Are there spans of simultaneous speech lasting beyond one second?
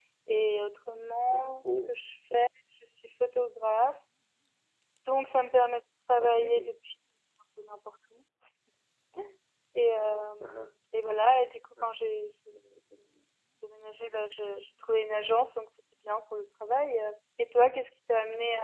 No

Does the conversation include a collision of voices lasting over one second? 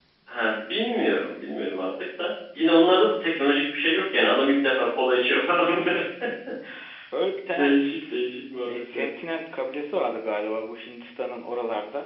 No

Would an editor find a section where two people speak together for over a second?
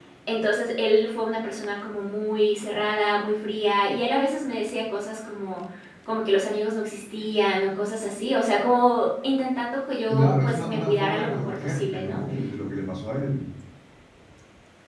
Yes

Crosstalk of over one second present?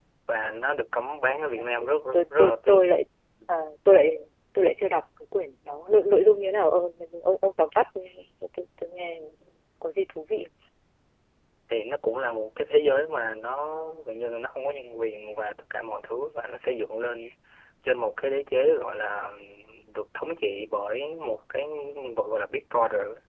Yes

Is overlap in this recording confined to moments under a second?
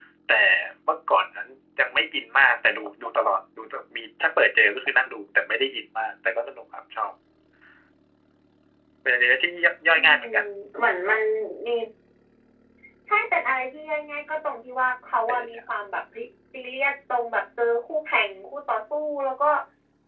Yes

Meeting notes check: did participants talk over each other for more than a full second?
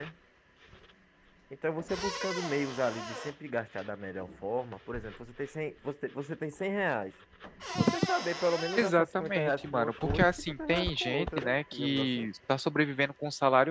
Yes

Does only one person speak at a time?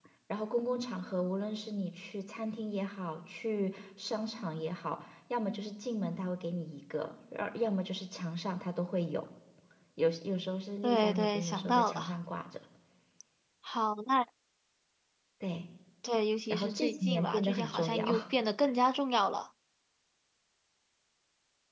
No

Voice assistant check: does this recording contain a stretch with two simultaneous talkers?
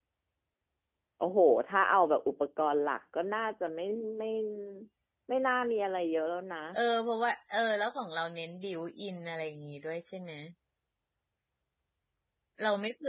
No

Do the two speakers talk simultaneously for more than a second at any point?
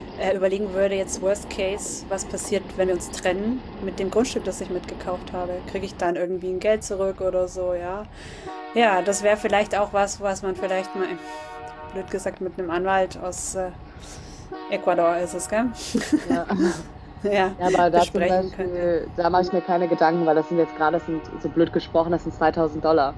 Yes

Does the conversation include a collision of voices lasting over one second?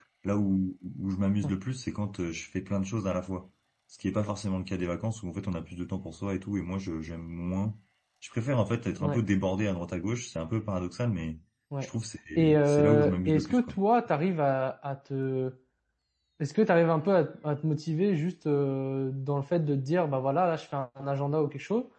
Yes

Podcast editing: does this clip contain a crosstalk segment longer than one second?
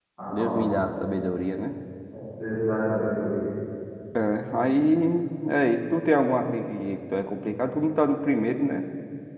No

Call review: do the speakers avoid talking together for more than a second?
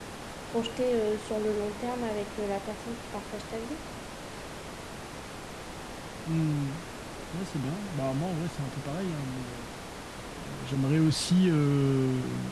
Yes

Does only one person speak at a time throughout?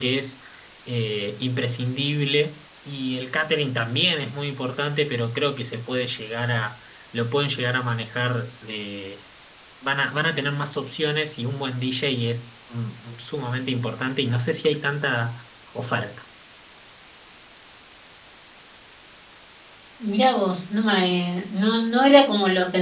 Yes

